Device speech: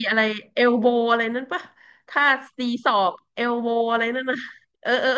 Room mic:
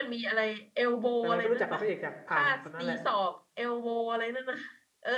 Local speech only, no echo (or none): แต่มันก็รู้จักกับพระเอกจากผ่านคนนั้นแหละ